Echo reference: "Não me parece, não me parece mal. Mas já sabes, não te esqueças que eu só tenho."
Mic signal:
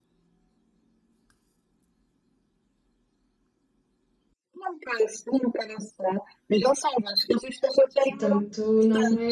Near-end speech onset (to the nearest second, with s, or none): 8 s